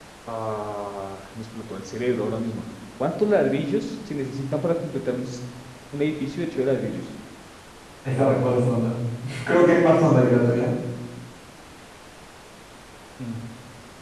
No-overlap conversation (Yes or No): Yes